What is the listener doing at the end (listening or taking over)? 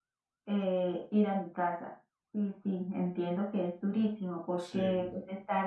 listening